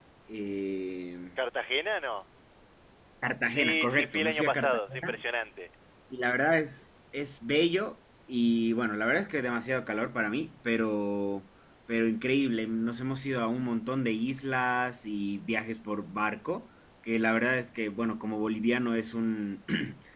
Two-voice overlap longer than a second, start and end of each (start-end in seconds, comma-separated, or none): 3.4-5.2